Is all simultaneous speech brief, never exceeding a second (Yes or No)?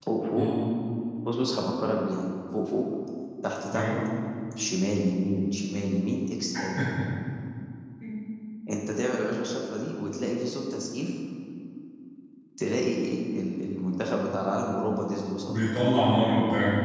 Yes